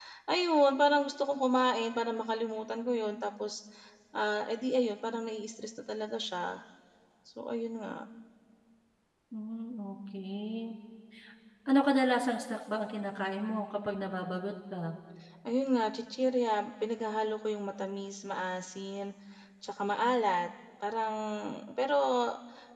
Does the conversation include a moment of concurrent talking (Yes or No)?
No